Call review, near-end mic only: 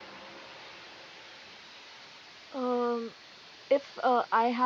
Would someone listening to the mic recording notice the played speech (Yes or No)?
No